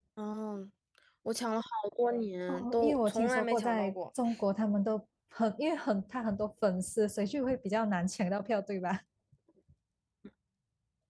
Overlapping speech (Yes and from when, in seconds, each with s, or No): Yes, from 2.5 s